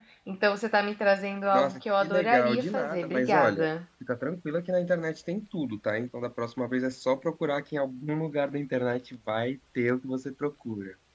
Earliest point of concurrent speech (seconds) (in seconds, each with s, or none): 1.5 s